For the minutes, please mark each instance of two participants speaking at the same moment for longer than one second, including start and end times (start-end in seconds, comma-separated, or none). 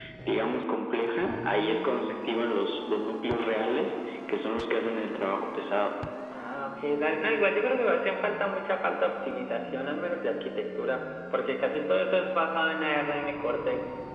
none